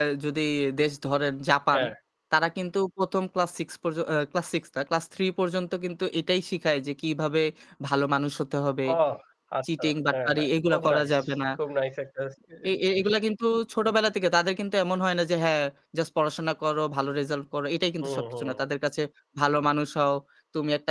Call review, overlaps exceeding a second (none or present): present